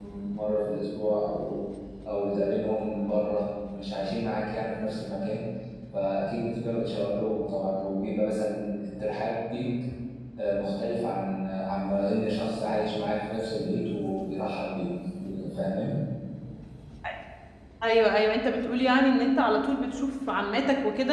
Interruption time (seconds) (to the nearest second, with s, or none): none